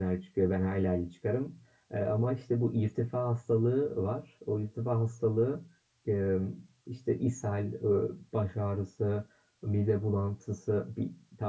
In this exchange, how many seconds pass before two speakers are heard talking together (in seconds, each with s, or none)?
none